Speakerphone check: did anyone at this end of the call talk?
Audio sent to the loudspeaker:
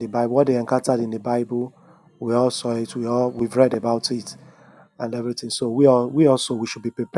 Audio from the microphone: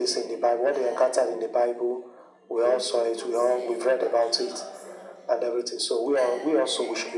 Yes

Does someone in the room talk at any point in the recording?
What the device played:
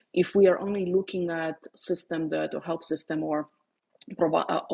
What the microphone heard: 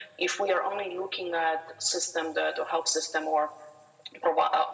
No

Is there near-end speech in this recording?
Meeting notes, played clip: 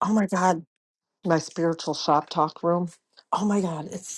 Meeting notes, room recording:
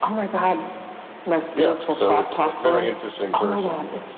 Yes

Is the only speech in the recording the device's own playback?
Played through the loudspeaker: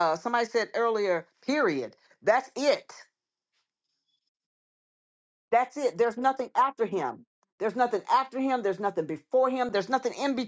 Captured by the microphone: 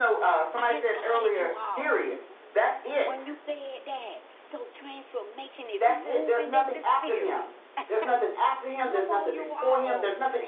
No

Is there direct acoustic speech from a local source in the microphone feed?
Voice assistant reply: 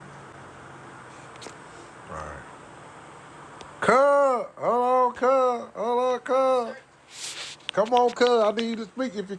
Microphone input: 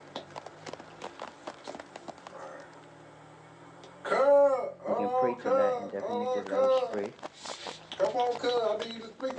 Yes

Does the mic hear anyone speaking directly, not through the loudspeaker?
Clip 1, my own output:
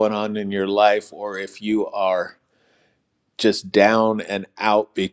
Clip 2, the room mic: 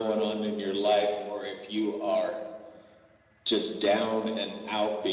No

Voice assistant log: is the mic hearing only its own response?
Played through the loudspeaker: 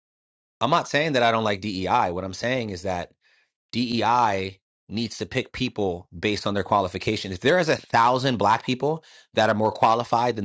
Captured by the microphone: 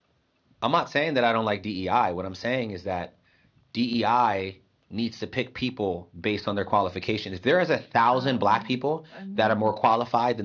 No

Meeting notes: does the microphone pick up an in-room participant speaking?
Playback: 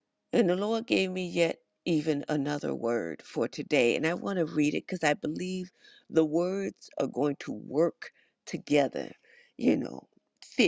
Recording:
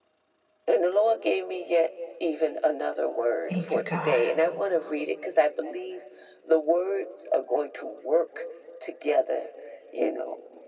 Yes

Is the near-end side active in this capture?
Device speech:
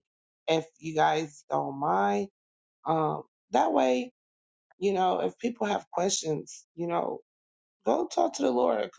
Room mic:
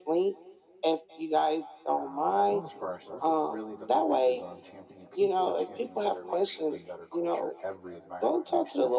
Yes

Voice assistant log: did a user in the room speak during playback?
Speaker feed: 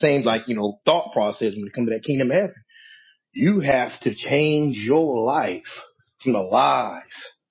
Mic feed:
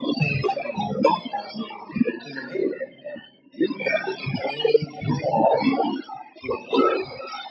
No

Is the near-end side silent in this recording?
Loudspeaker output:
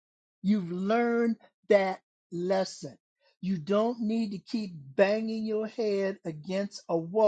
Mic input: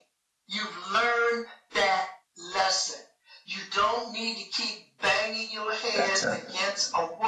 No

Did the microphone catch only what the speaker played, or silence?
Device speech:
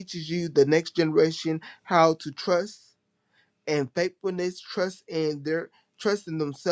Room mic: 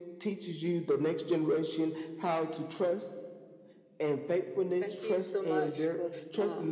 No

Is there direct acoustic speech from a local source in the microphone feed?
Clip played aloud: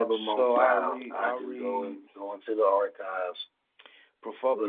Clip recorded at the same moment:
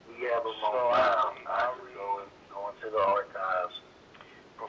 No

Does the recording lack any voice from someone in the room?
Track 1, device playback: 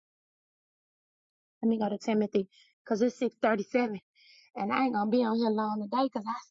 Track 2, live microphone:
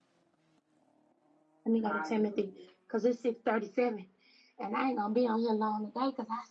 No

